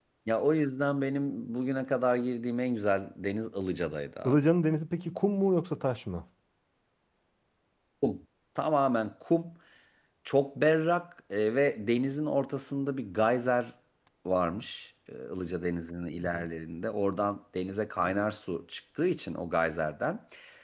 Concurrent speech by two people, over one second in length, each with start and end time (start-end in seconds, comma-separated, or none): none